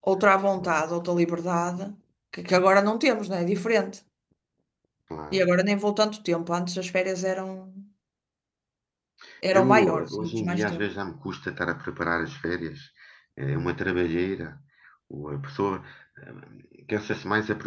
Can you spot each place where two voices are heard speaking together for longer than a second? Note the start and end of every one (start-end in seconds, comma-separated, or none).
9.5-10.9